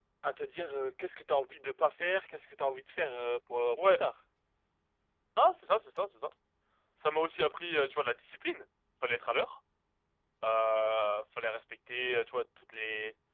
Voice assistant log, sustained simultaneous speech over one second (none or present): none